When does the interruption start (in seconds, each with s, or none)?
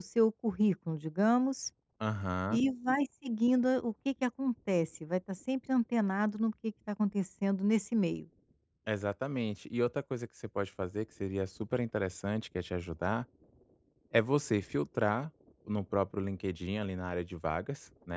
none